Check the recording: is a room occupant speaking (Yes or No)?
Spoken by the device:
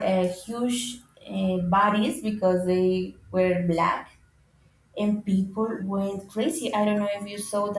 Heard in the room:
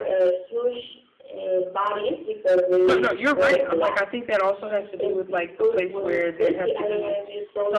Yes